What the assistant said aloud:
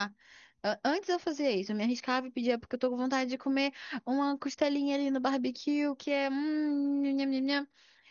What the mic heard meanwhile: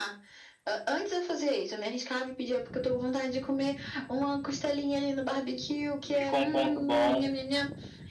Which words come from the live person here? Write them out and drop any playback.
Ficou um ponto bom.

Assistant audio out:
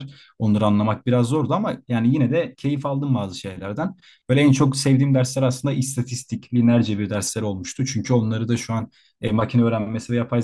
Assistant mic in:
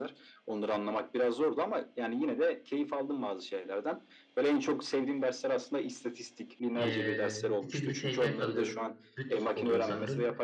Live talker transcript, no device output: Ee, bir tigri tekel kalıyorum. Büt oluyor sanırım.

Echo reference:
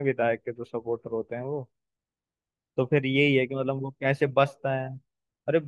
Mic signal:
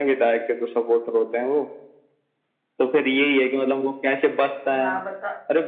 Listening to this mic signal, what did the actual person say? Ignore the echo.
हाँ बताओ

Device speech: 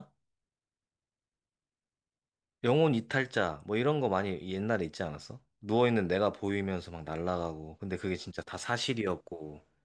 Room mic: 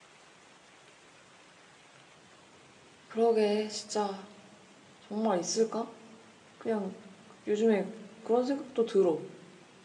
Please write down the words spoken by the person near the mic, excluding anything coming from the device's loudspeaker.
그러게, 진짜 정말 있을까? 그냥 요즘에 그런 생각도 들어.

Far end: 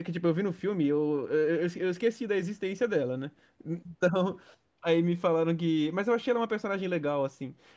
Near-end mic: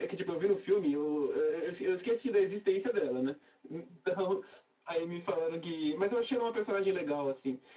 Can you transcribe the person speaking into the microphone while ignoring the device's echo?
none

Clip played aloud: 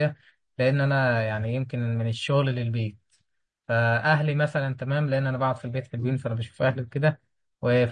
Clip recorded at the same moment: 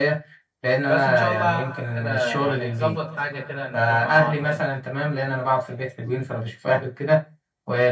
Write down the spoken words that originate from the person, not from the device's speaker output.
بس ان شاء الله هعمل كده يعني تظبط حاجه كده نروح مع بعض كده

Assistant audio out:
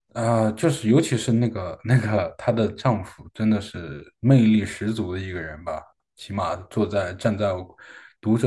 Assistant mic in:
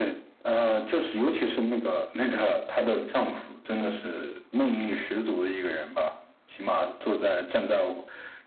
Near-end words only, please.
none

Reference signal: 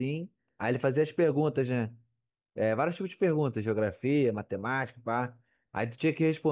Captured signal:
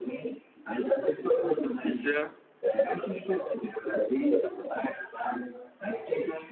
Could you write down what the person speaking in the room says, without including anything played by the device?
Pois é.

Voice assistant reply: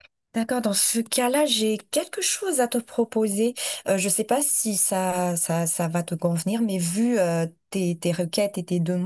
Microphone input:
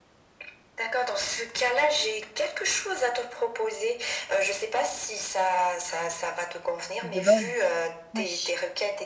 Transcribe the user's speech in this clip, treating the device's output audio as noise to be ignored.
le vol. Oui,

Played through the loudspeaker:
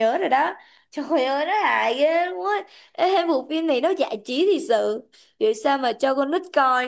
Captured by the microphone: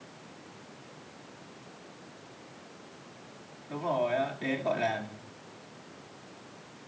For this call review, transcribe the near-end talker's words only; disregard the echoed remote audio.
đúng rồi á đấy gọi là

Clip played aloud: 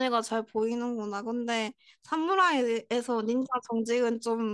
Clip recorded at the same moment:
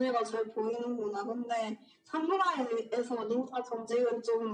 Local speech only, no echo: none

